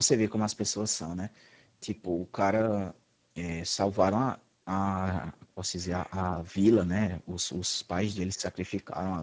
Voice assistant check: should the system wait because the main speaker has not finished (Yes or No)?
Yes